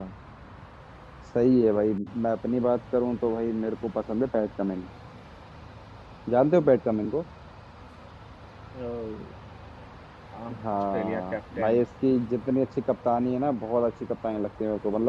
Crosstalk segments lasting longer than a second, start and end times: 10.6-11.8

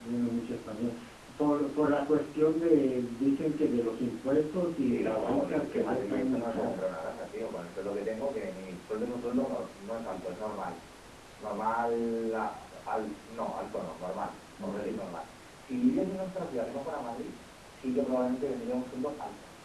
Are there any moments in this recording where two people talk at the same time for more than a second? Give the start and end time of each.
4.9-6.9

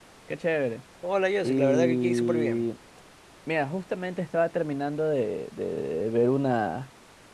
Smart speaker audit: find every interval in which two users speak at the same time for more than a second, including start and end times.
1.4-2.6

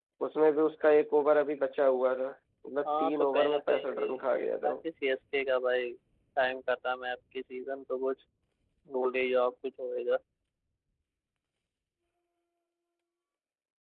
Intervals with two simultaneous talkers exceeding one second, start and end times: 3.0-4.3

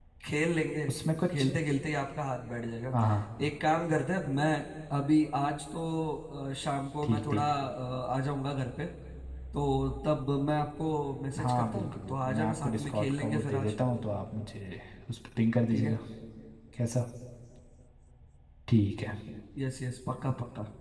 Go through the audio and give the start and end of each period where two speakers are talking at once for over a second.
11.4-13.7

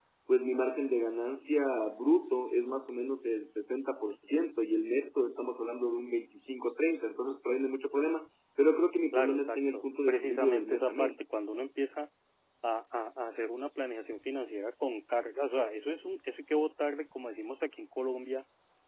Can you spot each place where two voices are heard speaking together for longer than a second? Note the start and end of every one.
9.1-11.2

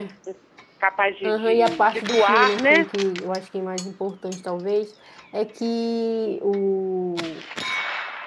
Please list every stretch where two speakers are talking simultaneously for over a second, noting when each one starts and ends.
1.2-2.9

